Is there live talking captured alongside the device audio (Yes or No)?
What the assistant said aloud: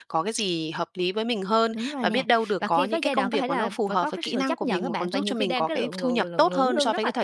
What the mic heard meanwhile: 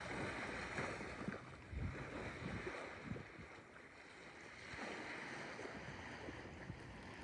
No